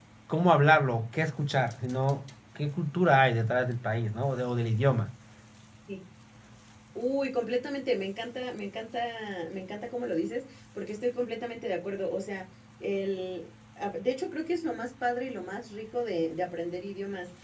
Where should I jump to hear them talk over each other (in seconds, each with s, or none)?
none